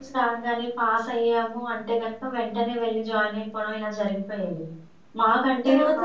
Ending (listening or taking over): listening